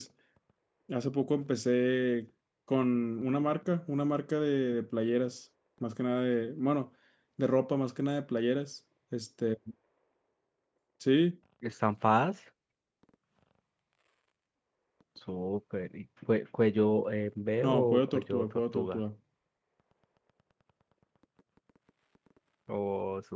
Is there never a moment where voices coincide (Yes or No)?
No